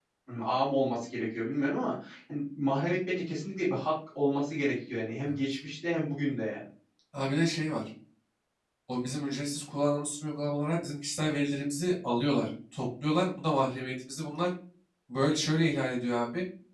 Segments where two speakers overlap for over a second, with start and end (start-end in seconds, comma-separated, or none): none